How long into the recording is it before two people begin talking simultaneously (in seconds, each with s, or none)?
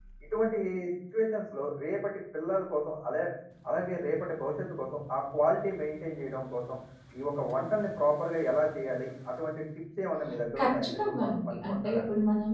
10.6 s